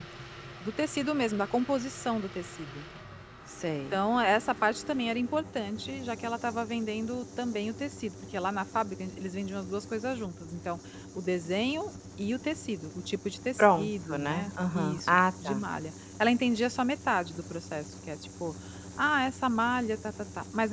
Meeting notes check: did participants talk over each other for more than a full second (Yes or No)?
Yes